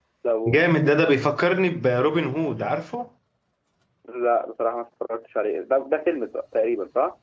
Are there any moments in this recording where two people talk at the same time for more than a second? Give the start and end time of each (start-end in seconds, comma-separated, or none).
none